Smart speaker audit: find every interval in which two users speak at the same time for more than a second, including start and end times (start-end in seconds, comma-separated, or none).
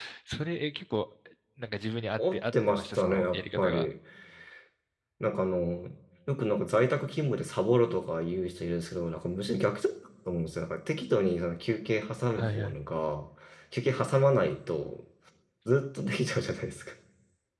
2.2-3.9